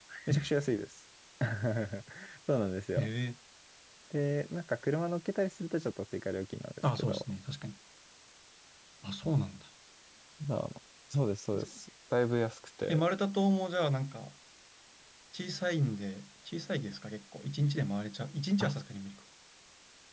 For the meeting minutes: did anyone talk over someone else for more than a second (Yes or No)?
No